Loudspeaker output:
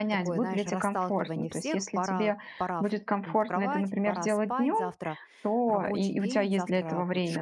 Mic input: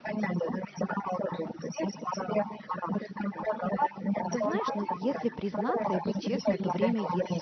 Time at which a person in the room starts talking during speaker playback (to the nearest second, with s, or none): 4 s